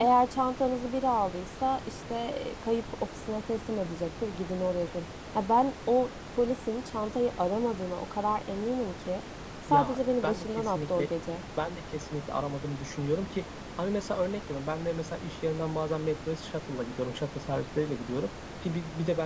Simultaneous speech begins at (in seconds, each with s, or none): 9.7 s